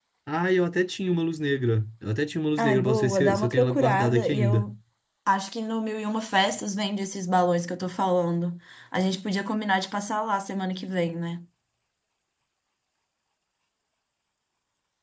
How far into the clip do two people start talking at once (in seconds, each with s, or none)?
2.6 s